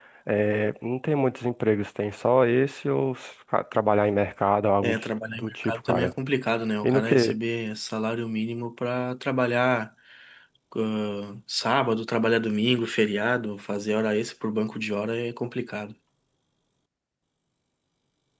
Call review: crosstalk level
present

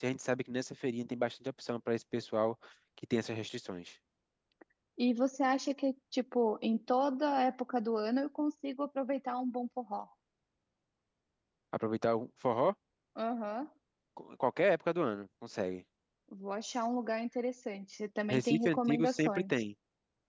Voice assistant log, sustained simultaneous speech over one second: present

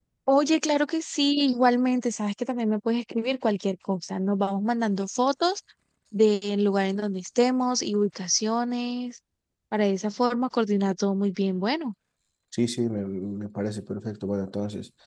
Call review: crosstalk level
none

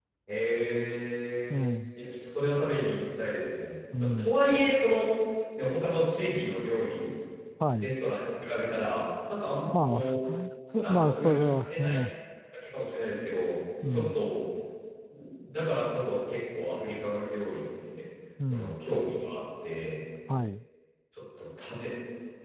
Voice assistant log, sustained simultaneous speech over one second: present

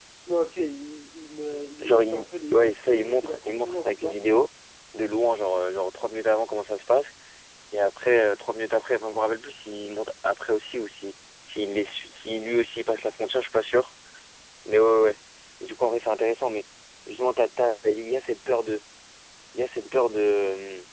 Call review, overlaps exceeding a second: present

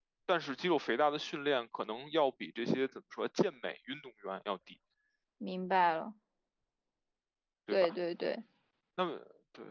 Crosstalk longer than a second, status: none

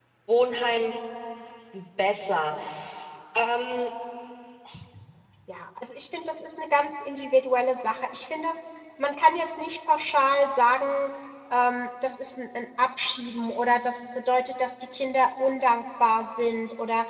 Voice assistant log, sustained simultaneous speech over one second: none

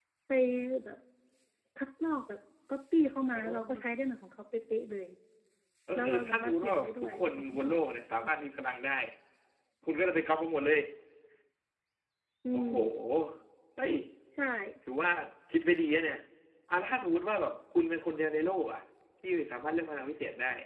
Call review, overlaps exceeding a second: present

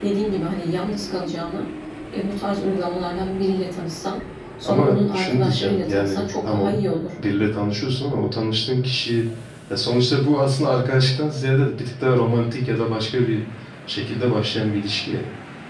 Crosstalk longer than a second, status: present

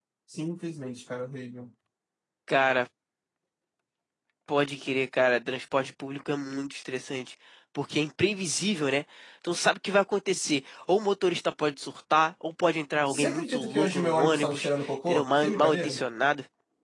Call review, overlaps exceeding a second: present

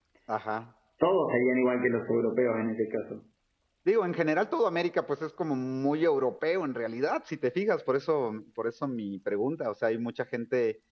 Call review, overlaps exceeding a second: none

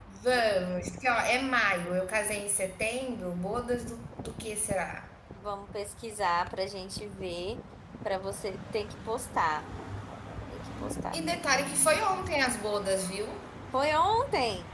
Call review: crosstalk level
none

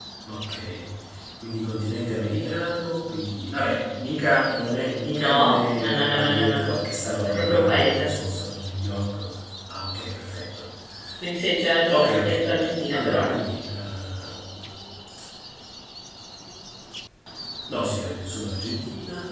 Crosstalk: present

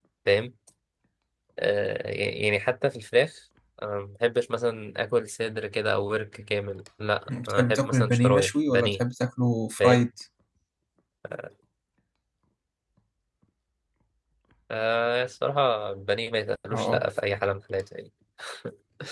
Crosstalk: present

